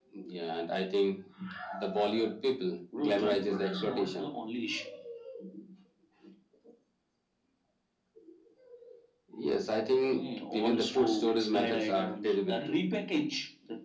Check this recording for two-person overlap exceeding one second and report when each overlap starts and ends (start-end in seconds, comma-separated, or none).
3.0-4.3, 10.1-12.8